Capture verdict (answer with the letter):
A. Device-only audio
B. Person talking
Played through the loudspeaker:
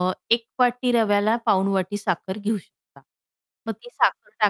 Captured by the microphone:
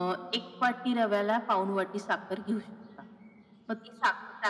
A